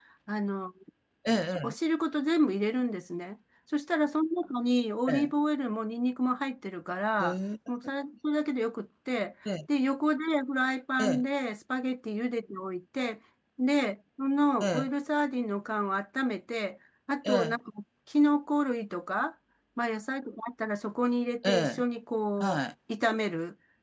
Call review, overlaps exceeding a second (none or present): none